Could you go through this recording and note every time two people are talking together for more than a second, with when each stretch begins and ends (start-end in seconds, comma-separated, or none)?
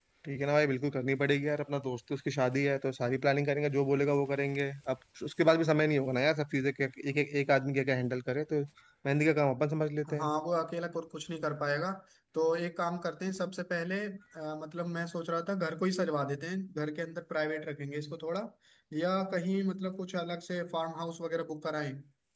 none